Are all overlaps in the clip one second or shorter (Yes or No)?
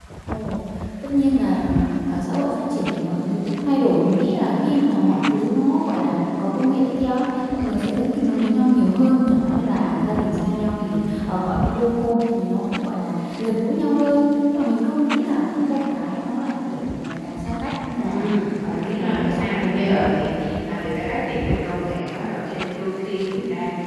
No